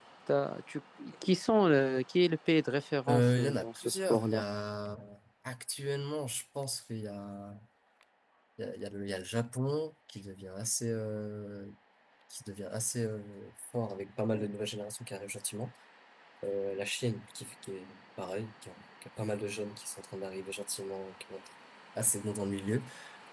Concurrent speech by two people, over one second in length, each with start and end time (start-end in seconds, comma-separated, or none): 3.1-4.4